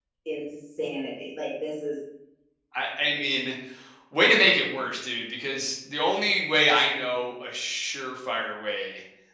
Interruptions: none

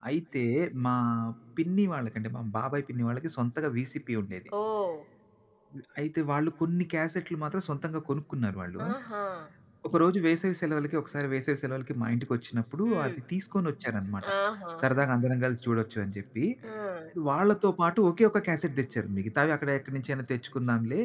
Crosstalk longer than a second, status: none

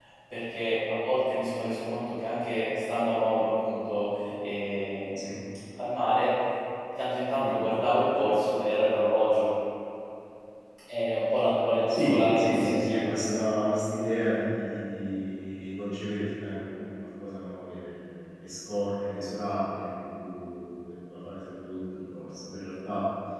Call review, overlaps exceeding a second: present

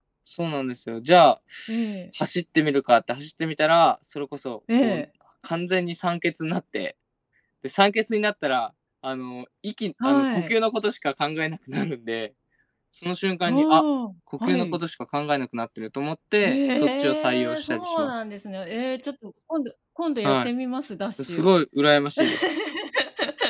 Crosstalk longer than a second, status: present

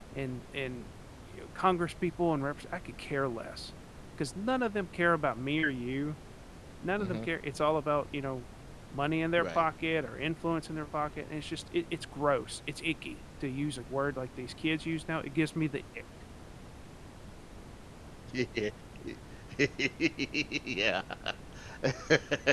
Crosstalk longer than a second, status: none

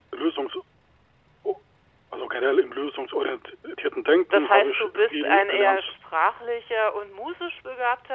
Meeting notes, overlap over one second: present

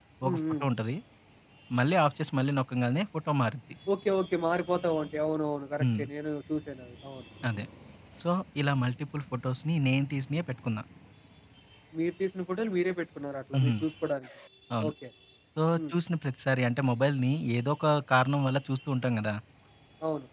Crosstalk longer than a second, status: none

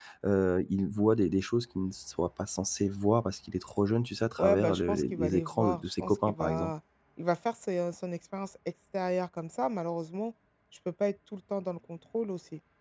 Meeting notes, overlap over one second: present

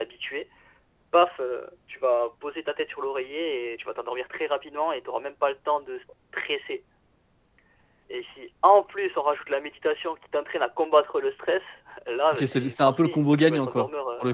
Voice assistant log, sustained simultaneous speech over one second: present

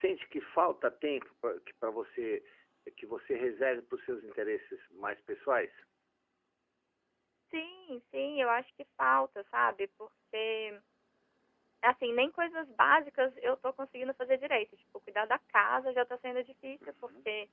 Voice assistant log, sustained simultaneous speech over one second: none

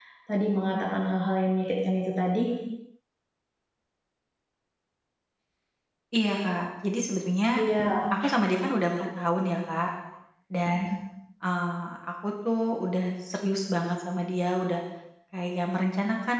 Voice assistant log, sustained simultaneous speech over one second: none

